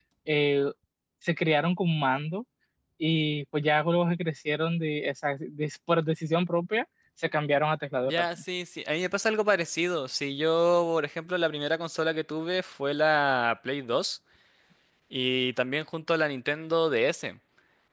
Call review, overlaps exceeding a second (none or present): none